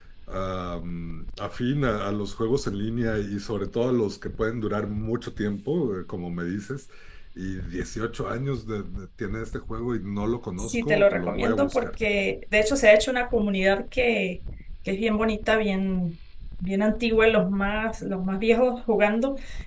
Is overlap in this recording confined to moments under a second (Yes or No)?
No